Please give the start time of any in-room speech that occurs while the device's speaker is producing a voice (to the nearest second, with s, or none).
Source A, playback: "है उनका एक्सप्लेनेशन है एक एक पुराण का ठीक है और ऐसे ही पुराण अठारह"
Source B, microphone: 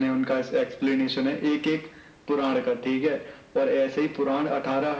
none